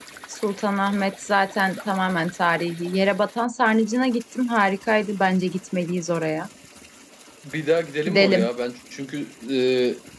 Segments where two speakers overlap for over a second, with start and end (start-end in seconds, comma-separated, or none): none